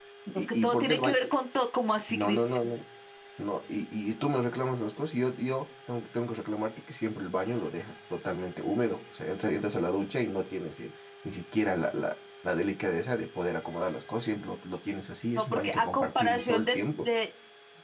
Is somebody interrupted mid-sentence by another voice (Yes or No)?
Yes